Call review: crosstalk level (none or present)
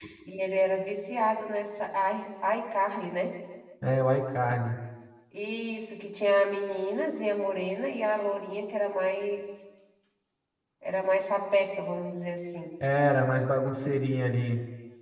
none